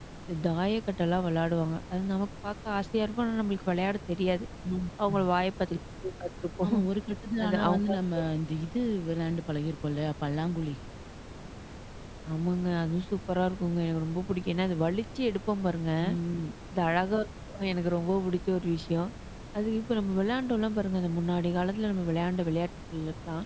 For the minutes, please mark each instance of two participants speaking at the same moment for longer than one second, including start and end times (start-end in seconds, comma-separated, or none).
none